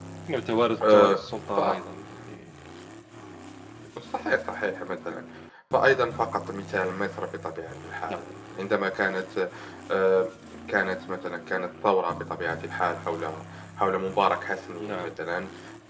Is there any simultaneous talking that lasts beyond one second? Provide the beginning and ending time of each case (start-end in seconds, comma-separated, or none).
none